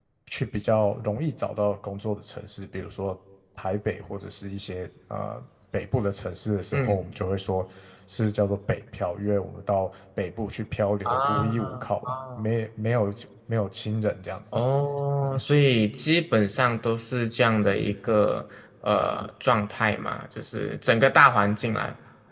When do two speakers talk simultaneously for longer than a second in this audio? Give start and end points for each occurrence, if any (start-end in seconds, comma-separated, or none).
11.1-12.4